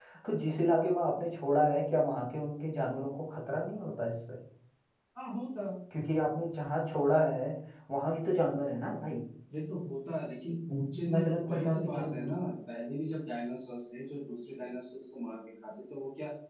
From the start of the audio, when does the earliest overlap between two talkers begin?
10.7 s

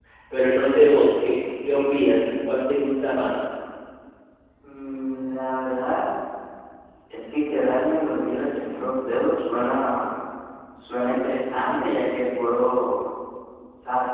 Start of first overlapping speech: none

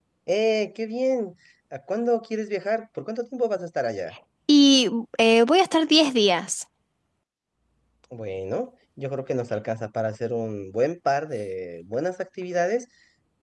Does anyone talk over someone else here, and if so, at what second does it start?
none

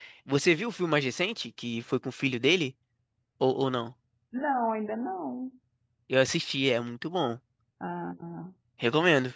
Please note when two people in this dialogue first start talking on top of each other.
none

